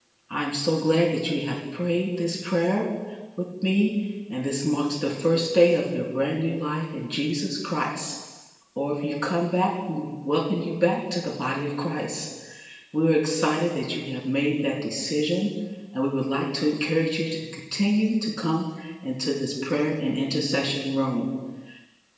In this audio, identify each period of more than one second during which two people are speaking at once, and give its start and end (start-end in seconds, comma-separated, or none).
none